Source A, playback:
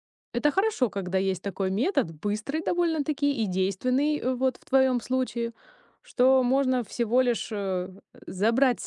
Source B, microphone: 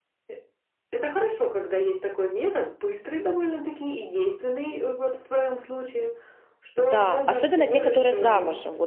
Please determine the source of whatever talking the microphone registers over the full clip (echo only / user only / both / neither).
both